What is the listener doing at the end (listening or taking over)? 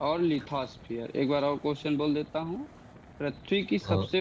listening